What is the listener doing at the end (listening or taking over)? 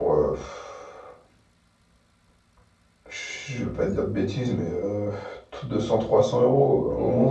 taking over